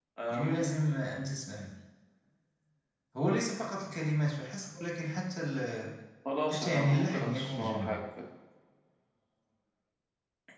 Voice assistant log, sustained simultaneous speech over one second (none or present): present